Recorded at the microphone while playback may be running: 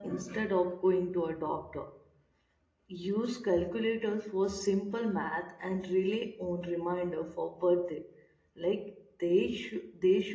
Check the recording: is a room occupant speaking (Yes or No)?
Yes